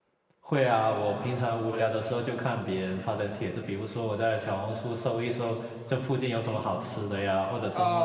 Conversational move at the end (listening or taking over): taking over